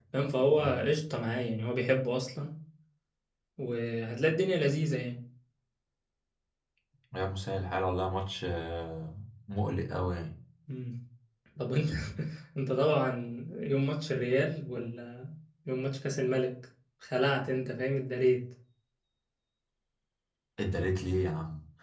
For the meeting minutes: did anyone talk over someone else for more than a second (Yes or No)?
No